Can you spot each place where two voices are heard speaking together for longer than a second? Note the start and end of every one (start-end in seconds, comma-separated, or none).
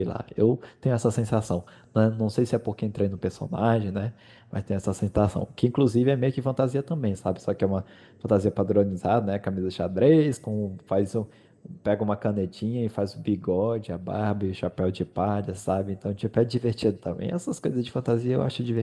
none